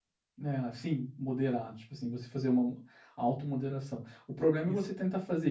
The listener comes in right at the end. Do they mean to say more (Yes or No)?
No